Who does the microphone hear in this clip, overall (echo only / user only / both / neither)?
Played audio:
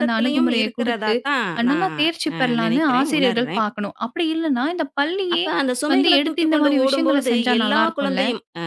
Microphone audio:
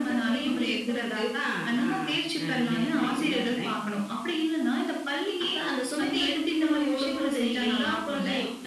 echo only